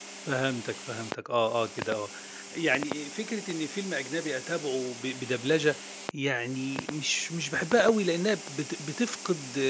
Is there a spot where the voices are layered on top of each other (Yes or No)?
No